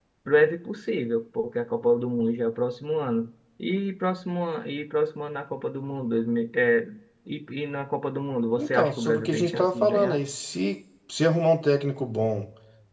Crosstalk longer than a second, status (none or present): present